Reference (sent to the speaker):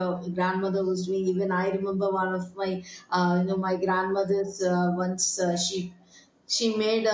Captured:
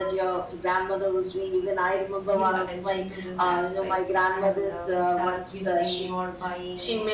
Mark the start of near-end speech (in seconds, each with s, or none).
2.3 s